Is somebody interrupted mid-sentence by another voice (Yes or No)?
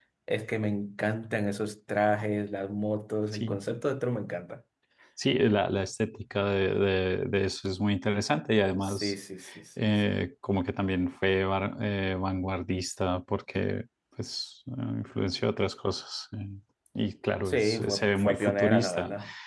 Yes